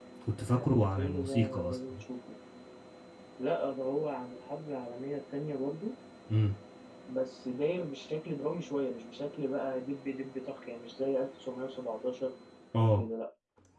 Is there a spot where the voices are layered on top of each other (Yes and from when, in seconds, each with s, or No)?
Yes, from 0.5 s